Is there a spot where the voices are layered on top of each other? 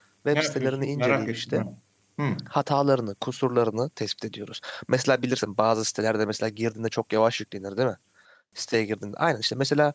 Yes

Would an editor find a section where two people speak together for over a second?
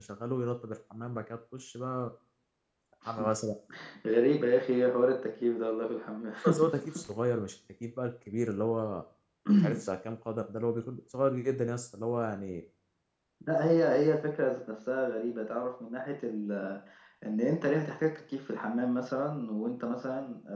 No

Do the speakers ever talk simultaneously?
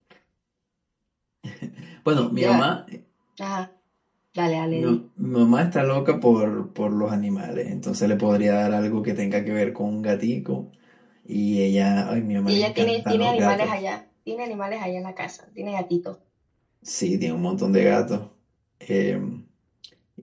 Yes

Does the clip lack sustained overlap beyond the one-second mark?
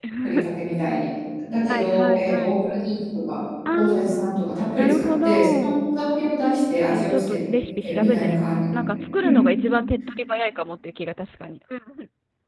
No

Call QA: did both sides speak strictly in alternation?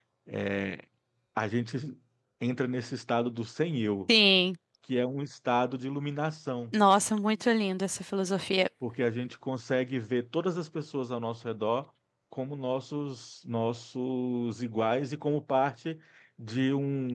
Yes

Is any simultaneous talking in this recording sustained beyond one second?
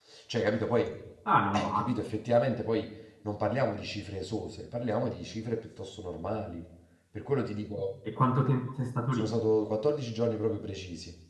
No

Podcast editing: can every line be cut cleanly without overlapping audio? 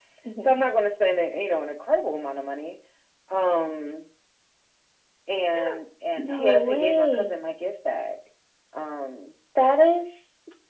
No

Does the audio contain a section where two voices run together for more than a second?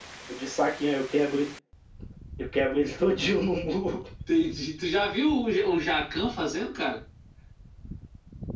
No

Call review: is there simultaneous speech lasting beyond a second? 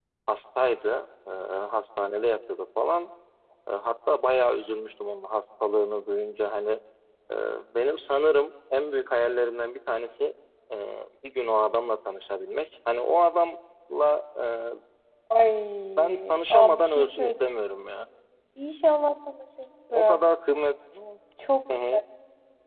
Yes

